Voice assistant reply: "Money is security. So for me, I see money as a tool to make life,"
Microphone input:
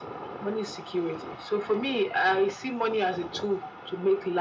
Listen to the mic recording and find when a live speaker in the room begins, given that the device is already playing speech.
none

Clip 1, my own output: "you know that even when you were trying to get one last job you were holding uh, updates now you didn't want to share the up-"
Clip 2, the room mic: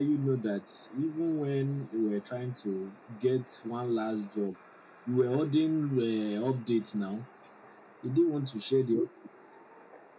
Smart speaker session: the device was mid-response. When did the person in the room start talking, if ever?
none

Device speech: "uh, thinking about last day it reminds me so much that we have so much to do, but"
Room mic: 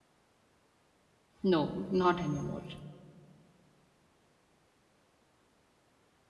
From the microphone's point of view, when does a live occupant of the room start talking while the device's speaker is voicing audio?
1 s

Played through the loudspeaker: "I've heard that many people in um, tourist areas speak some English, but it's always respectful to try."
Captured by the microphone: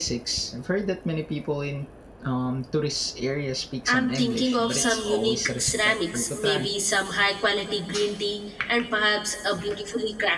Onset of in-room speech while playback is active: 4 s

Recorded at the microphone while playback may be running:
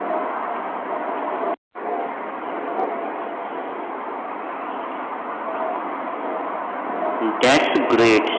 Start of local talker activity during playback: 7 s

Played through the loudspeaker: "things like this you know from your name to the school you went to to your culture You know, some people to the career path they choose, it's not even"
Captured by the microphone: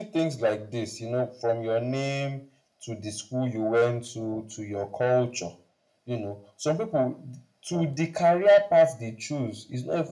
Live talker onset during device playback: none

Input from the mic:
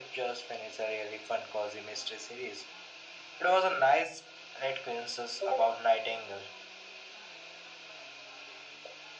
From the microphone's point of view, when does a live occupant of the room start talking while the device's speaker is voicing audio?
none

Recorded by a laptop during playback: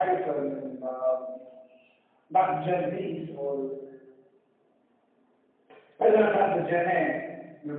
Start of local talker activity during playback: none

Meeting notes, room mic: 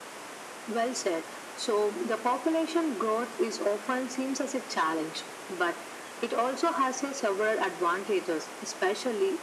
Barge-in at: none

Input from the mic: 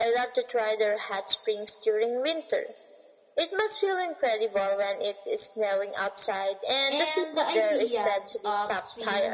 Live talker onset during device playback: 7 s

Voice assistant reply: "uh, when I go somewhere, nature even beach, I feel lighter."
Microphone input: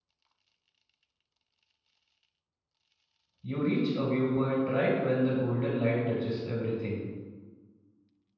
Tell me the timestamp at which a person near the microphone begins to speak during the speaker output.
3 s

